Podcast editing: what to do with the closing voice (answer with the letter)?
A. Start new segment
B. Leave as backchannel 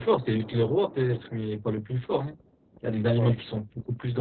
B